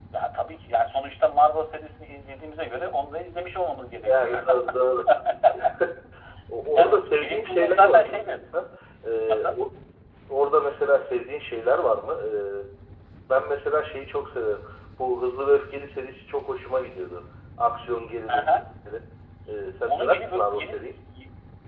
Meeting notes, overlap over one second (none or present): present